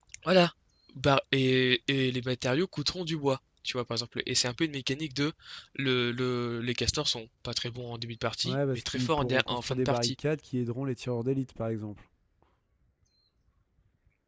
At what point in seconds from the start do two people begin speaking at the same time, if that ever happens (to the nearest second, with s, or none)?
8 s